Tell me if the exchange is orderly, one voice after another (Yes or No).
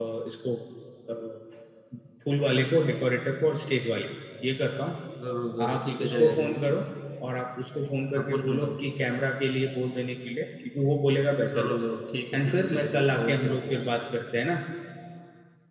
No